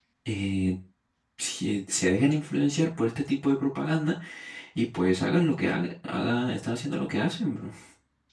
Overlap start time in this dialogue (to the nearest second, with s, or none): none